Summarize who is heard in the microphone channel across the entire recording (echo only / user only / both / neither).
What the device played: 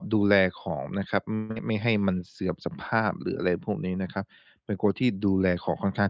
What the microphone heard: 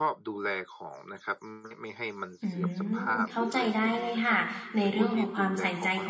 both